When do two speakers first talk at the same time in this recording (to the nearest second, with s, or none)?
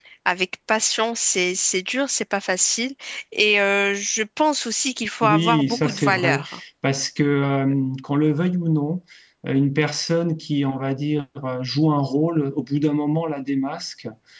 5 s